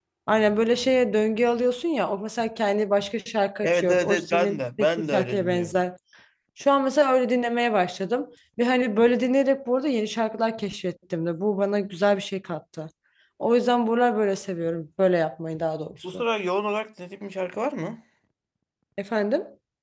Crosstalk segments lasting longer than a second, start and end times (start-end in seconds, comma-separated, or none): 3.6-5.8